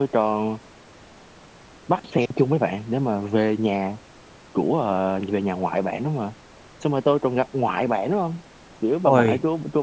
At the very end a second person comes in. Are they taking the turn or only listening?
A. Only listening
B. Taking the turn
A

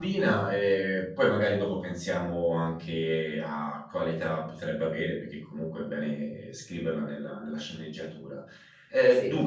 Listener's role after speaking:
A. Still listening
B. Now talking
A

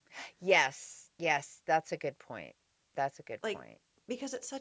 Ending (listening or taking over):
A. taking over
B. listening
A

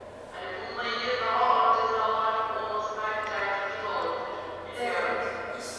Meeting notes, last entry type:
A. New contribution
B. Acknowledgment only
A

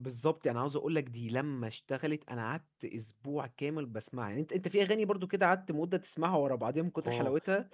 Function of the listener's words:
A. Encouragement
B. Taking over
B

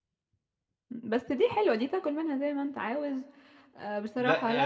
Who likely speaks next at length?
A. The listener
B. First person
A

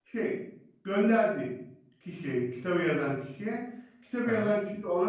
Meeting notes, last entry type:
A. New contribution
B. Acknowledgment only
B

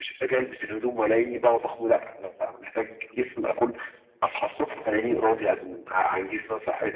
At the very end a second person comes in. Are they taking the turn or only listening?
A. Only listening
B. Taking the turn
B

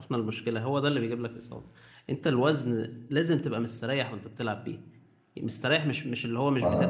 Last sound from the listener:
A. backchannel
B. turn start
A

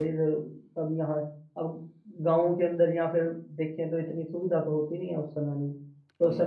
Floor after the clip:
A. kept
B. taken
A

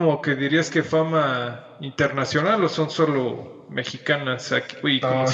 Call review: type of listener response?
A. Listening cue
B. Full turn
B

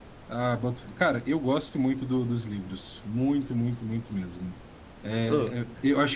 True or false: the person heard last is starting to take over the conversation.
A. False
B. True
A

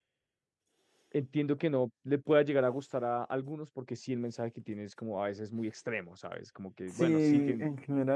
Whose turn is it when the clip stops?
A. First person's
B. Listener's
B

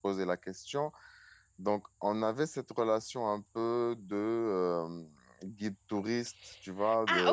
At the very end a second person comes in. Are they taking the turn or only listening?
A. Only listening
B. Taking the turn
B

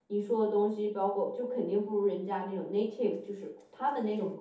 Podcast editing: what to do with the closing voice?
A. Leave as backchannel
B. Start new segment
A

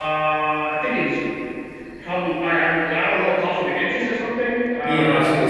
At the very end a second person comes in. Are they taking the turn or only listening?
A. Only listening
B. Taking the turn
B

